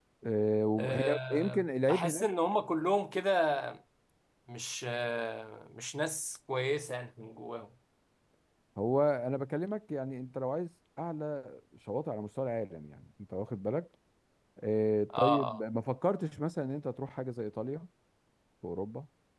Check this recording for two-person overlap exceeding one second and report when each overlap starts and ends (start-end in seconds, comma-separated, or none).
0.8-2.3